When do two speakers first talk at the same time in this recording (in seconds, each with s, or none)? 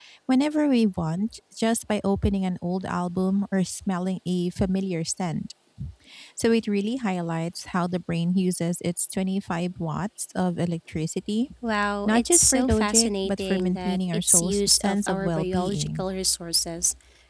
12.1 s